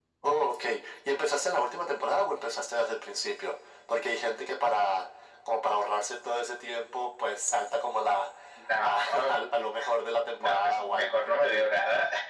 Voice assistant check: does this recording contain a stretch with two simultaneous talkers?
Yes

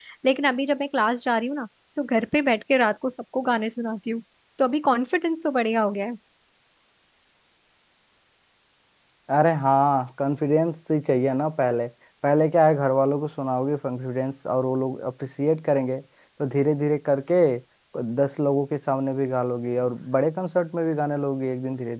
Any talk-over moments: No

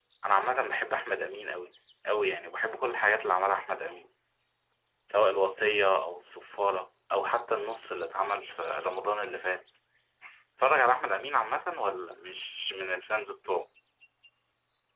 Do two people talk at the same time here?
No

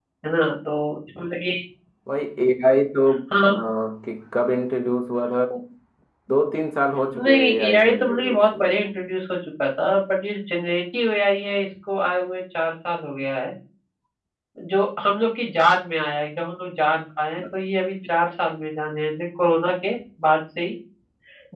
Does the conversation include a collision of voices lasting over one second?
Yes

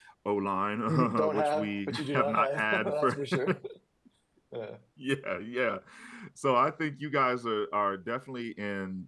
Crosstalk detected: Yes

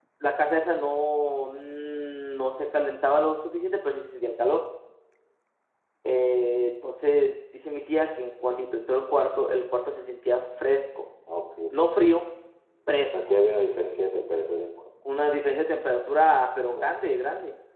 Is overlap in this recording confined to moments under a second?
Yes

